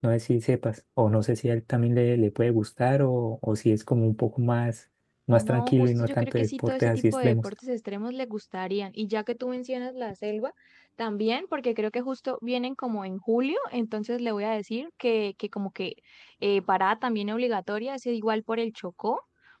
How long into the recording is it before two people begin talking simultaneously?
5.3 s

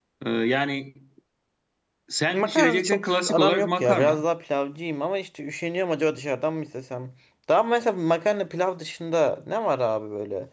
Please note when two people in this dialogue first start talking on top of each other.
2.3 s

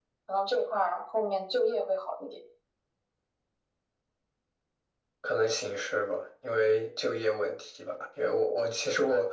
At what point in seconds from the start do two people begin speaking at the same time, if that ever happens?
none

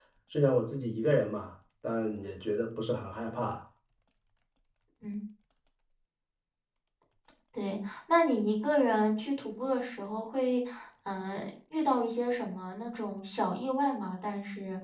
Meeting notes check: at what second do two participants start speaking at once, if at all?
none

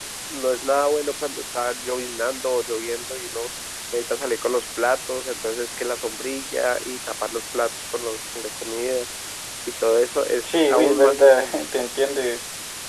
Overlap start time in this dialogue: 10.4 s

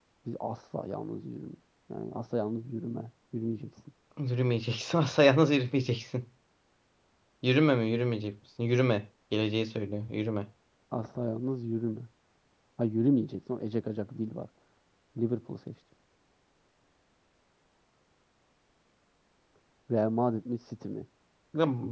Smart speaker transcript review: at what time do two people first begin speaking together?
none

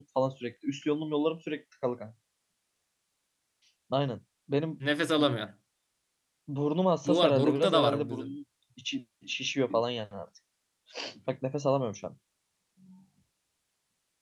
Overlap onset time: 7.0 s

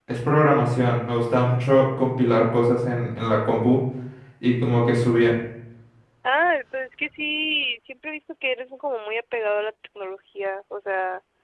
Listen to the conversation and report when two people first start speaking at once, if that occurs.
none

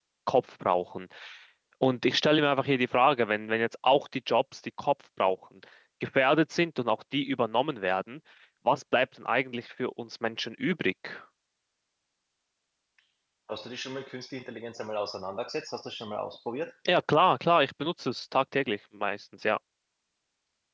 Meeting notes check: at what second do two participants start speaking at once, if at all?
none

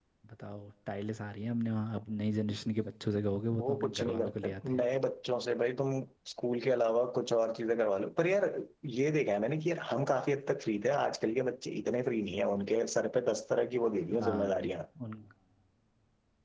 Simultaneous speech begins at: 3.6 s

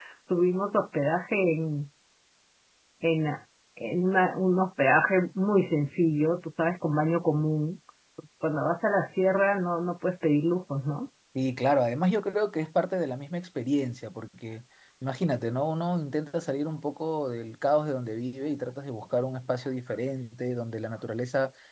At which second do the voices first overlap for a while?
none

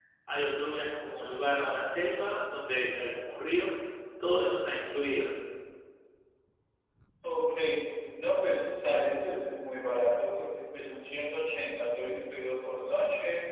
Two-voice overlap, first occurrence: none

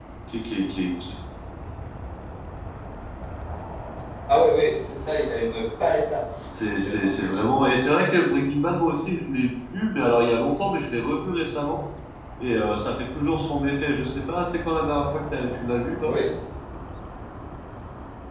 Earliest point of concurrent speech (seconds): 6.4 s

